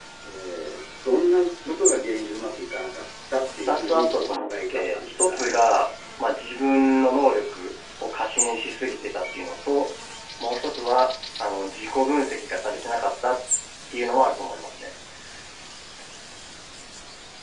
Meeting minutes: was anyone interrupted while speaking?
Yes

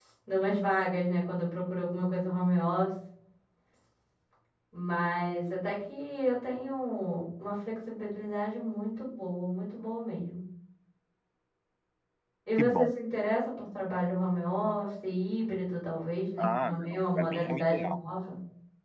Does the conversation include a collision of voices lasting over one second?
Yes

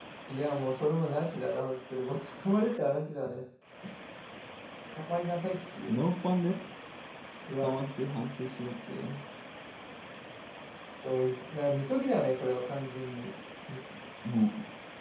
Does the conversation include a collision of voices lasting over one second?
No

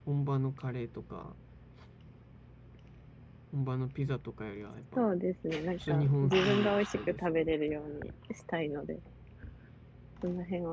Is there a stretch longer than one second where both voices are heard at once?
Yes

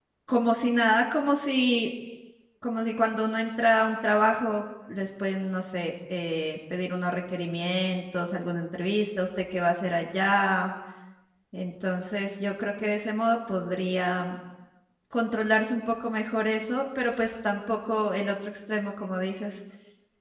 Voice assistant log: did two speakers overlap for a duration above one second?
No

